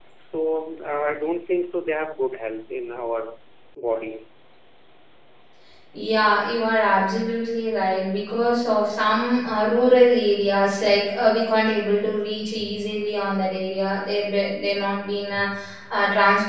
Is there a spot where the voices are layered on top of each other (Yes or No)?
No